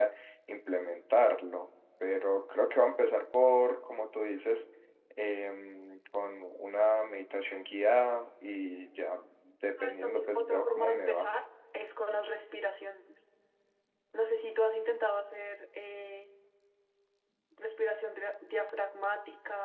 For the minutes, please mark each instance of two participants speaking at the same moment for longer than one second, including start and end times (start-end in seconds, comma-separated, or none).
9.8-11.3